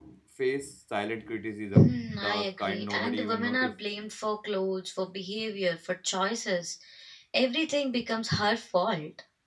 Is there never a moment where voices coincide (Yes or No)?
No